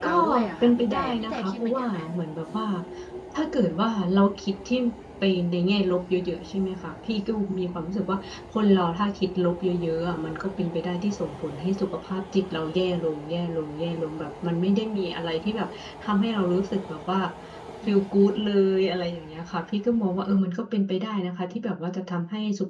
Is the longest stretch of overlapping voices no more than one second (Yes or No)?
No